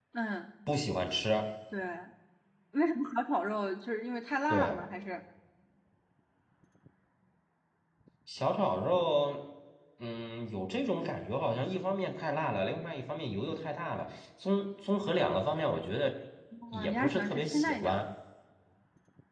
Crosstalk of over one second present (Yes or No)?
Yes